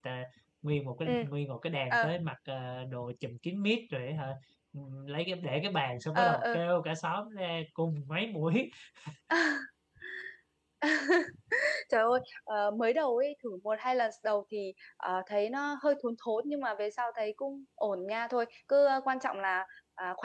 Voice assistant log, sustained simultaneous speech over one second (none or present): none